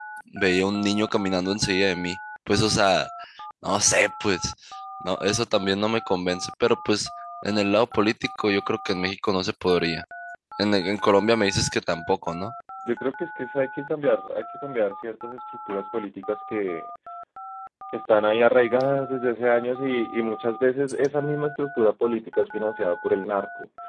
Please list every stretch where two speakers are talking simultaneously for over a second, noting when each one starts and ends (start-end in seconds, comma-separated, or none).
none